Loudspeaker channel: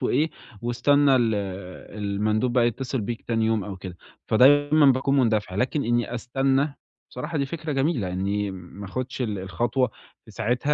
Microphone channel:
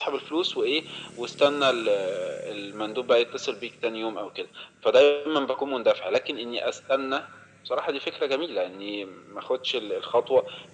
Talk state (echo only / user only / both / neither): echo only